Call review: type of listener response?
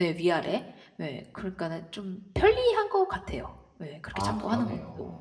taking over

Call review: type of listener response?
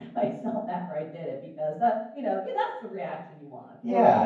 taking over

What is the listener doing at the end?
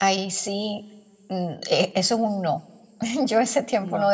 listening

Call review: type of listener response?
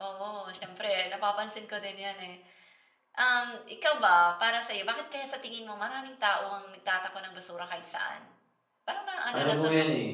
taking over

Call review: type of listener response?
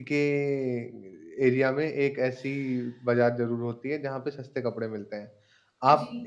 listening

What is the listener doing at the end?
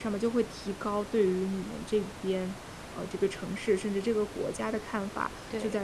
listening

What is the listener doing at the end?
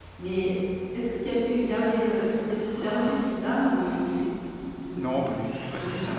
taking over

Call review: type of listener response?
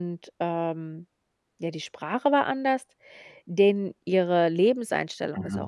listening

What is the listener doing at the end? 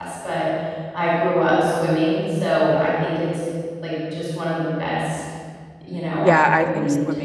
taking over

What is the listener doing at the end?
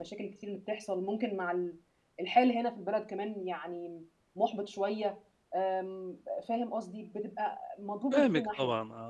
taking over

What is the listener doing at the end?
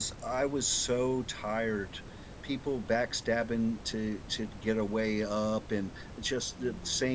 listening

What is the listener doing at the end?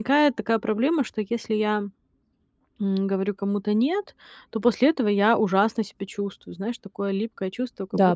listening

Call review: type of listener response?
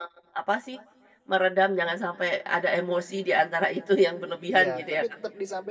taking over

